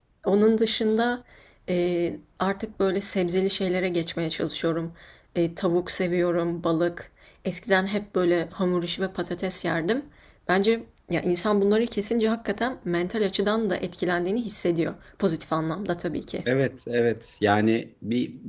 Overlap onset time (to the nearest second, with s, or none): none